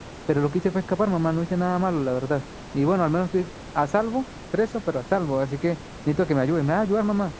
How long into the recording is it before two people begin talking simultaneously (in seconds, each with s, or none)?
none